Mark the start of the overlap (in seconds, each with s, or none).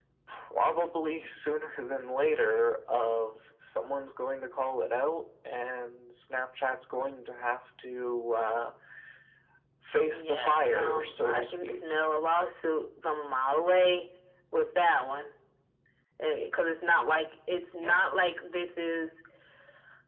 10.0 s